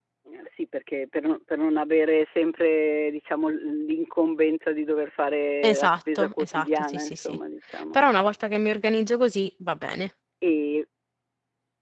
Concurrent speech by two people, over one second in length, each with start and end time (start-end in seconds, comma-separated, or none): 5.6-7.4